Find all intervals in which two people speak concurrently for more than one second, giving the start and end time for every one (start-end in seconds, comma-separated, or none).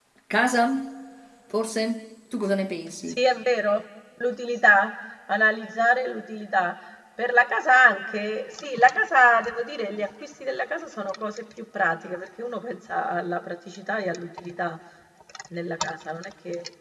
none